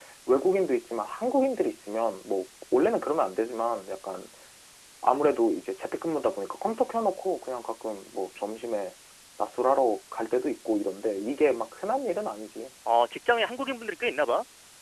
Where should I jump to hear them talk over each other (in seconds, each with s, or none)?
none